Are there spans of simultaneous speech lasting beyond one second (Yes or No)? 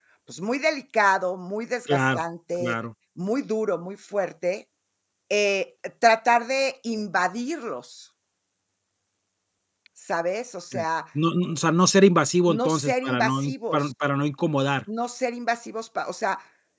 Yes